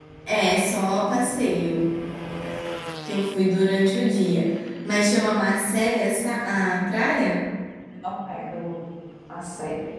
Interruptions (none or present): none